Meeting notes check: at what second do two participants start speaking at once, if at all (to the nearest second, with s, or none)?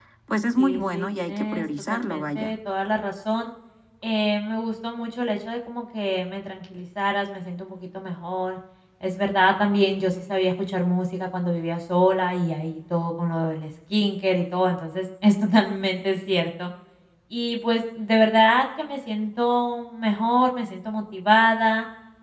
1 s